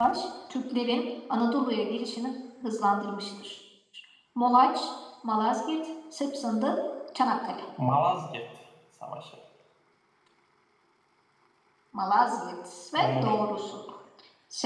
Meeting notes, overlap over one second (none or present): none